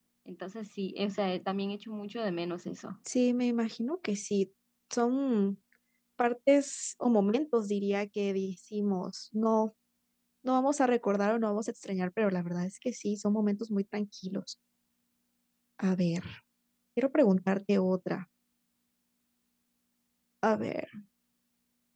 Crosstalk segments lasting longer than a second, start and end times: none

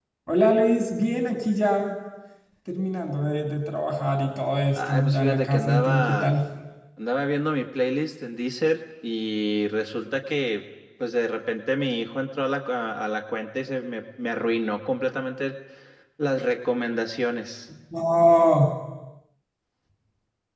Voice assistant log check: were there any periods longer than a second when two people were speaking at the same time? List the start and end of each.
4.8-6.3

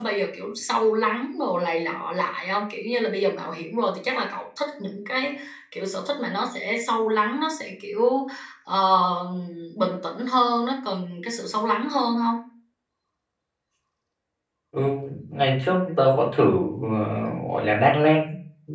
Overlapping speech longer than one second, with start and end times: none

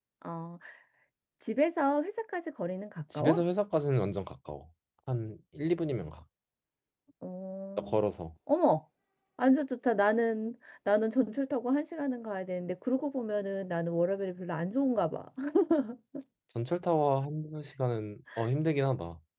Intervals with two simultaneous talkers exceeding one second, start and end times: none

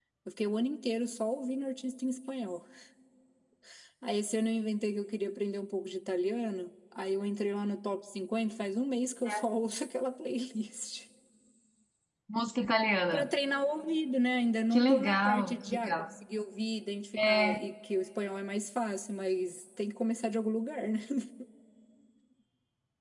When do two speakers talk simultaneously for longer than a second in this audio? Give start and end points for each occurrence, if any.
14.7-16.1

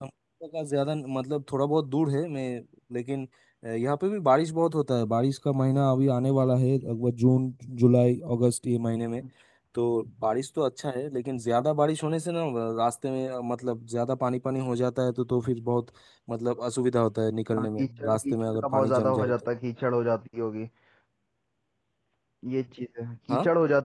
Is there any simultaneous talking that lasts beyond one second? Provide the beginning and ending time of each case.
17.5-19.3

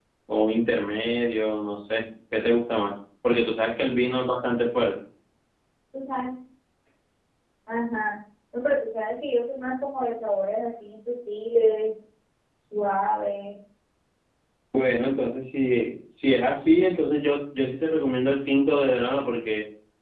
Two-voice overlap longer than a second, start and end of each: none

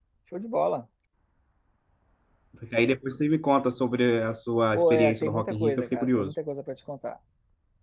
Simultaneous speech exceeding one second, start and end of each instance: 4.8-6.3

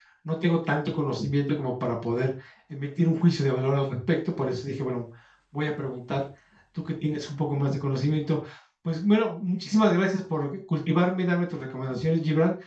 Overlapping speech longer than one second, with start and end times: none

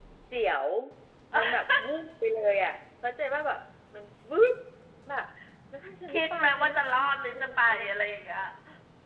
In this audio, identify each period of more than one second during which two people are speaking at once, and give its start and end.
6.1-7.8

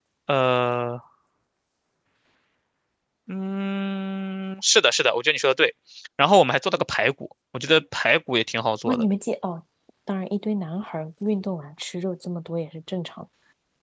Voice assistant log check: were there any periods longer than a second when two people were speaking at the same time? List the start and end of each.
none

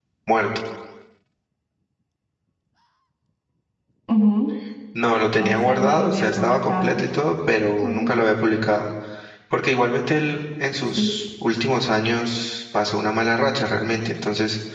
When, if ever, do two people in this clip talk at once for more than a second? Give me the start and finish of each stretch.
5.4-7.1

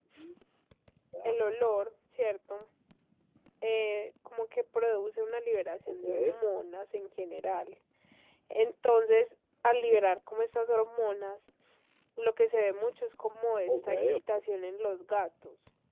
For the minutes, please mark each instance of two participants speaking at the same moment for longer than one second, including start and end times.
none

